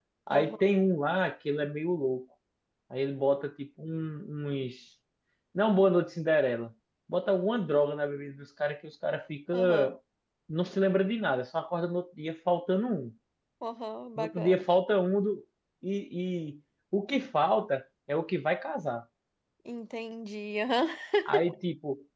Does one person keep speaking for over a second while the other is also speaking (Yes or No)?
No